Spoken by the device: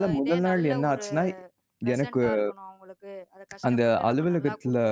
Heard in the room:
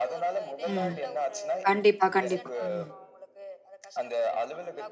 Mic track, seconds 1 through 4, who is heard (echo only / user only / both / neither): both